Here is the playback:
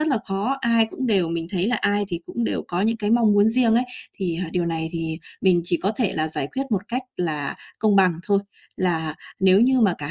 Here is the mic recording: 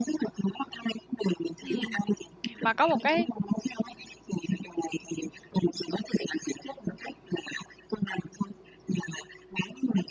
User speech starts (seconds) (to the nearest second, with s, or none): 2 s